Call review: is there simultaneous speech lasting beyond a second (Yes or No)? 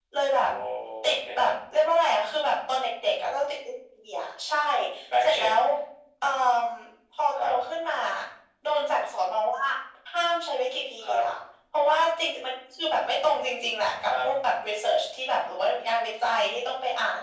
No